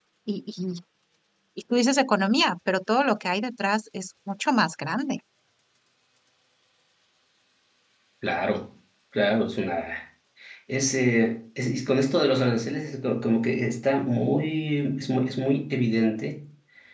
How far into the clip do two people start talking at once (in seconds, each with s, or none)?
none